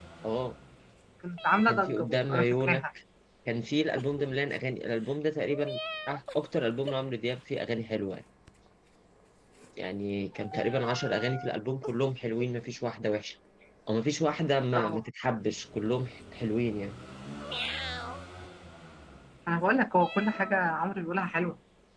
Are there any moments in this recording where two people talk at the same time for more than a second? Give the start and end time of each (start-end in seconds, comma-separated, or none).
1.6-2.8